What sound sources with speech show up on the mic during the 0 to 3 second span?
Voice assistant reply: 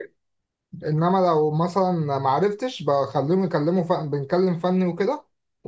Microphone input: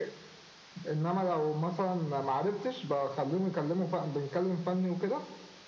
echo only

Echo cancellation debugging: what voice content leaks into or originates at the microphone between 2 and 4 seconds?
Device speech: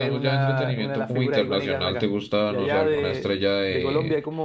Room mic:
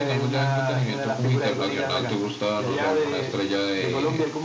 echo only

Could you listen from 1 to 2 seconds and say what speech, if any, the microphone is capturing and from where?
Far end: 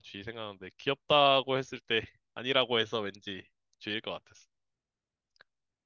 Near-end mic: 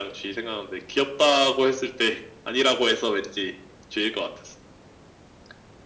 echo only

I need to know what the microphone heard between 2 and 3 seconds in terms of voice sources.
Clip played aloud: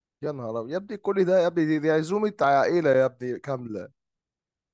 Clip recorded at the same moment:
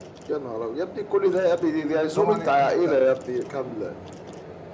both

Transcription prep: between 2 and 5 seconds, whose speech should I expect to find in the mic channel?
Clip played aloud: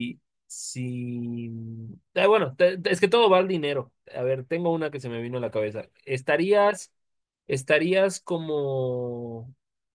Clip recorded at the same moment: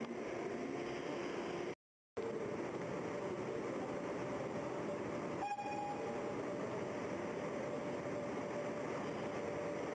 neither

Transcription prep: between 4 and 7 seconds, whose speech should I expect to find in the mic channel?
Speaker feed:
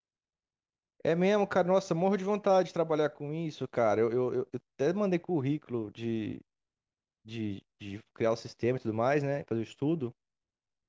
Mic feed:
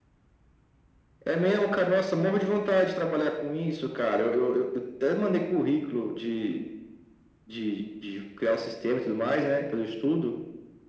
echo only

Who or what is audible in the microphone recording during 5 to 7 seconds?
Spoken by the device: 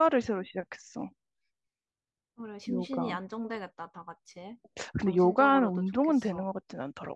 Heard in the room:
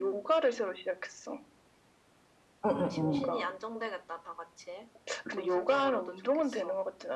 echo only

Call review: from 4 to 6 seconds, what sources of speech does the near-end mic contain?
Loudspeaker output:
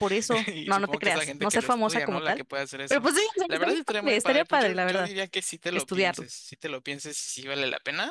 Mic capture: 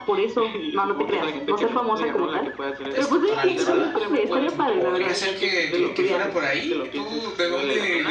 both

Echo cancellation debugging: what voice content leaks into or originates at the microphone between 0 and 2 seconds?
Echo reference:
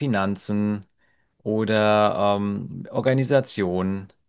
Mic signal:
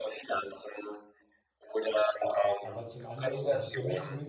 echo only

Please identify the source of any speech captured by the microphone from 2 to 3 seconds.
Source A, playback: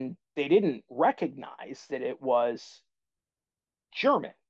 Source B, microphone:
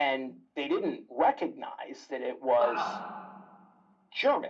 both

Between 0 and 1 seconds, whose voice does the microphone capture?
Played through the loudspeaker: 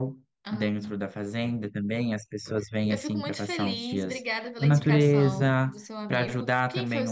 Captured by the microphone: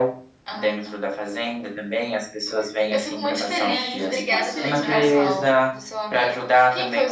echo only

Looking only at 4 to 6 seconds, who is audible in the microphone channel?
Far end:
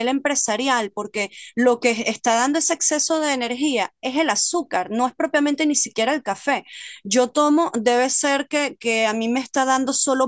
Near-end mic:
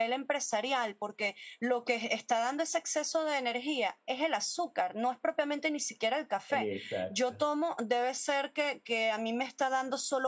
echo only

